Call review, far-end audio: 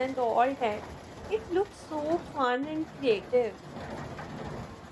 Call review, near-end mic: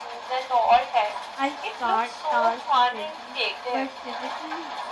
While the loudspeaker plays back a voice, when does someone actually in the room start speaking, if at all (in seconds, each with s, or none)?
1.3 s